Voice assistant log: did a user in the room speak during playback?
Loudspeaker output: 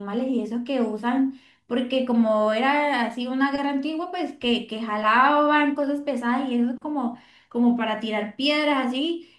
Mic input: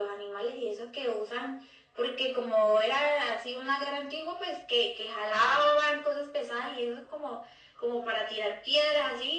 No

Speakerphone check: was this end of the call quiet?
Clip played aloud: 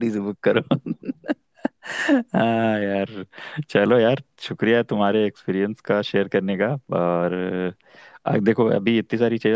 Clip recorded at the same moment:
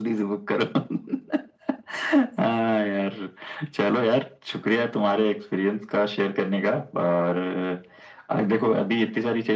Yes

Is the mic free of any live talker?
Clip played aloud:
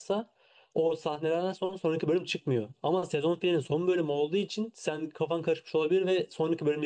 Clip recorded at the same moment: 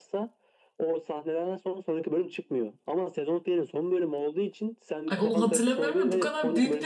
No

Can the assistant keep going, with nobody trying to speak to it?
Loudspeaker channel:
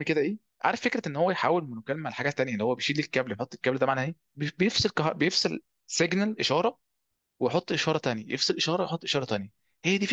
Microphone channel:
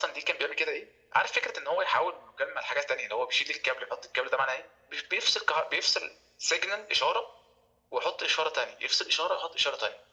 Yes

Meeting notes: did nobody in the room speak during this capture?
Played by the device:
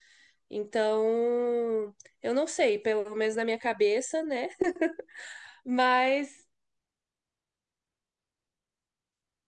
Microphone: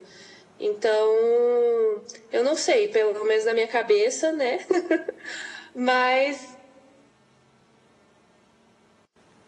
Yes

